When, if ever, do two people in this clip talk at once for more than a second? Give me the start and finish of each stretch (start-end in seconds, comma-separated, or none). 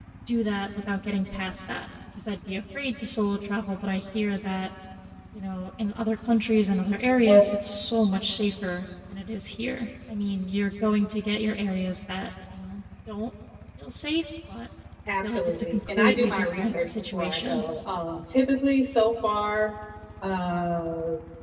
15.2-17.6